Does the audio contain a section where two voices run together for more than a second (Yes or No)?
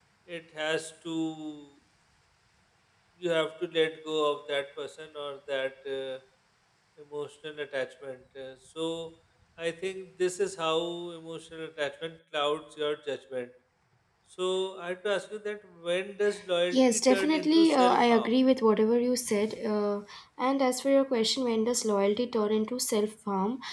Yes